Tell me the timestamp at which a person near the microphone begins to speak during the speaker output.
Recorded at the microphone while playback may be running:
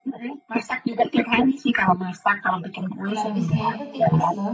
3 s

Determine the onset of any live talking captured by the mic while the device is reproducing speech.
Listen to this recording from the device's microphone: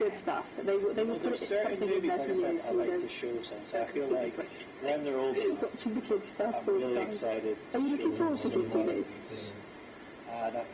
8 s

